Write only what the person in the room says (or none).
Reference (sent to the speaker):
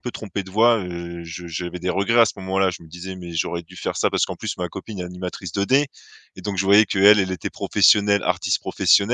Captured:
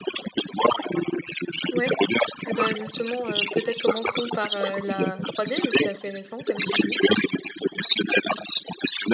Ouais. Et ben justement, heu, peut-être commençons par, heu, la 3D vu que c'est assez récent comme tu dis.